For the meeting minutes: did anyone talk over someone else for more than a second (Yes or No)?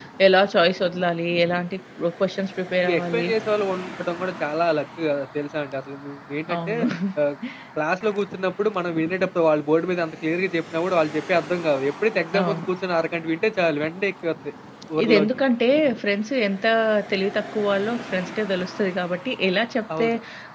No